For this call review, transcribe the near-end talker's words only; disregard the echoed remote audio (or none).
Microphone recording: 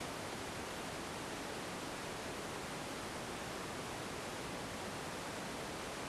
none